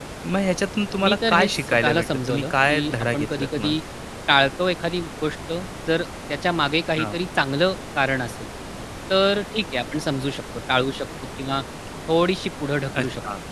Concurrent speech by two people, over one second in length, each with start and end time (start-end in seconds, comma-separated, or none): 1.0-3.8